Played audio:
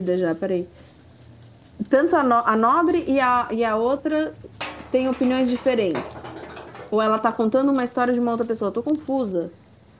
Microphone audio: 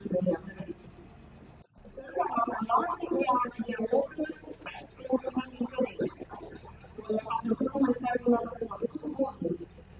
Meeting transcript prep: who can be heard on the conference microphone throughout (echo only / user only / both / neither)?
echo only